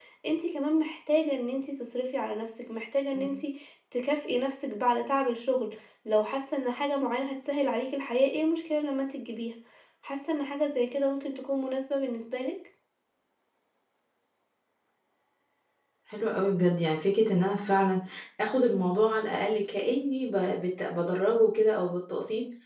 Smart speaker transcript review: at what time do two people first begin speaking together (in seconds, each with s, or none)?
none